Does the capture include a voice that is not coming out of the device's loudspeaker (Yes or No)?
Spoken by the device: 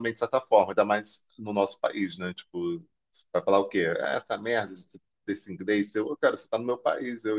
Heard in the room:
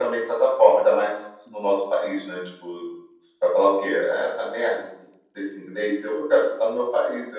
No